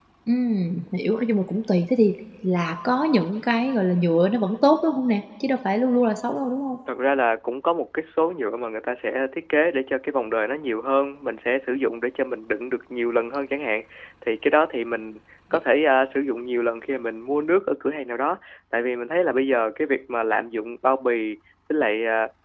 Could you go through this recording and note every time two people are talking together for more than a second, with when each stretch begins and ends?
none

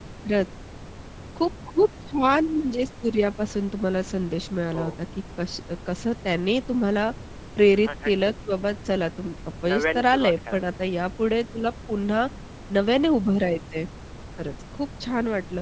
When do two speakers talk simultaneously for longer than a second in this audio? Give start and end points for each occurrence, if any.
9.7-11.0

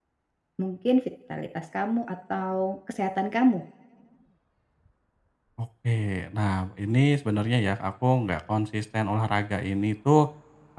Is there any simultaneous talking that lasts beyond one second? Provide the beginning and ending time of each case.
none

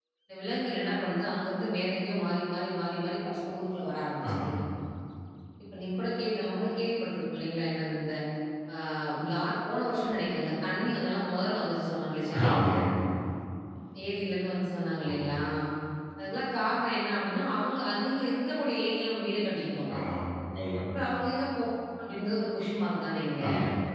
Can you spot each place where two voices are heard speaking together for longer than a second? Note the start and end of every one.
none

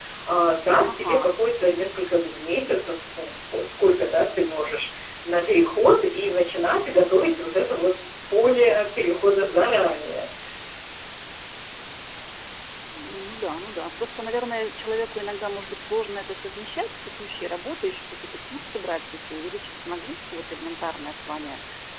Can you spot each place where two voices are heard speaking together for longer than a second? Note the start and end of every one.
none

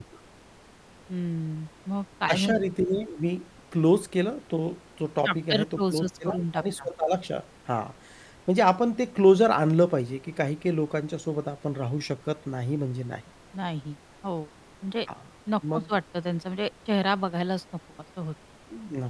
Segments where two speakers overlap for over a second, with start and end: 5.2-6.9

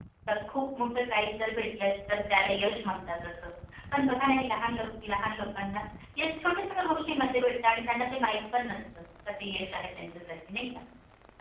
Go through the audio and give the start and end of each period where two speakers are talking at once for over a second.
none

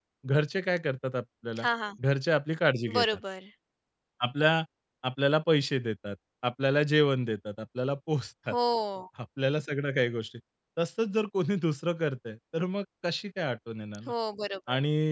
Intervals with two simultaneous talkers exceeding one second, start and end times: none

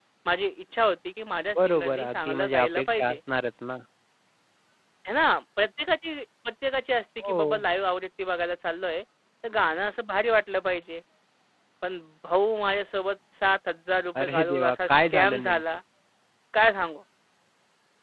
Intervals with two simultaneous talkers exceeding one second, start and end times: 1.6-3.2, 14.2-15.6

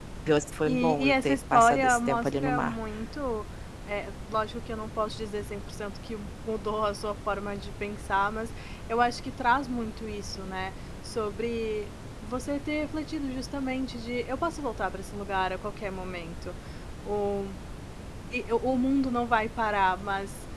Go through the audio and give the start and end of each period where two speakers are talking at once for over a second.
0.7-2.7

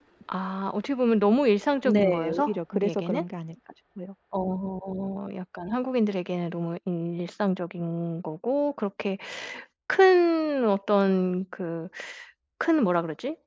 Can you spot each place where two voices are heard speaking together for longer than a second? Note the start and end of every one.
1.9-3.2

